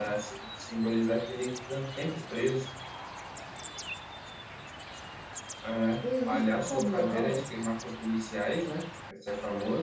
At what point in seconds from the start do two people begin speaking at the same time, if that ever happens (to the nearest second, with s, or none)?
6 s